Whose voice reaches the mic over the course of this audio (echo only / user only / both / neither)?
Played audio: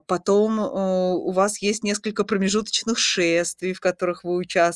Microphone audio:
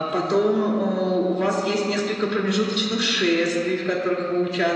echo only